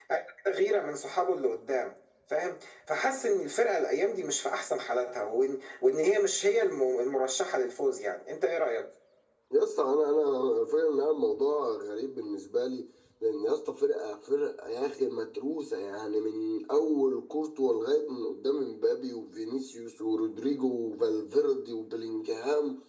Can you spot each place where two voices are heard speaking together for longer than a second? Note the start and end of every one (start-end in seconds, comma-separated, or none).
none